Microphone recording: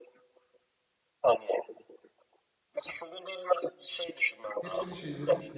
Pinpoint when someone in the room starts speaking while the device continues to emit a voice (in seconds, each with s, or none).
4.6 s